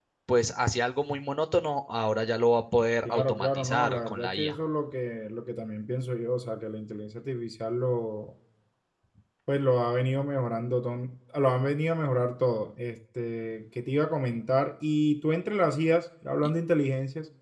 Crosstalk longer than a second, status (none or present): present